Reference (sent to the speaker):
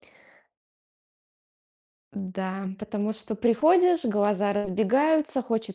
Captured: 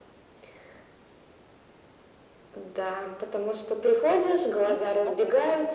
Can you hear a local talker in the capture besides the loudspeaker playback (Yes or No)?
Yes